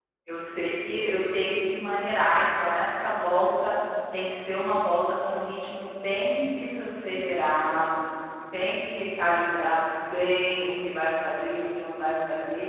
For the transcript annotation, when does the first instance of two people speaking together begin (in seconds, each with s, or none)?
none